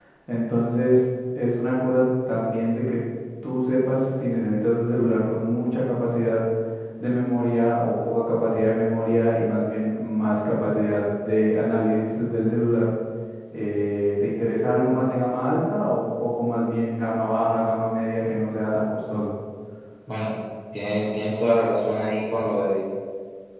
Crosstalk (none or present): none